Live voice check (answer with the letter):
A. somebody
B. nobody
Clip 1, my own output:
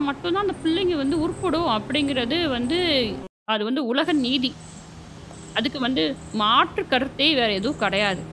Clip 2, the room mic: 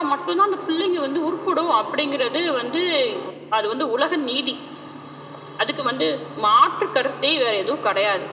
B